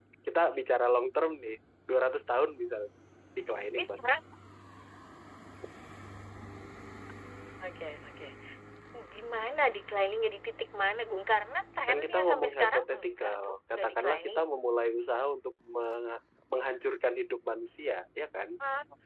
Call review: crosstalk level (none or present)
present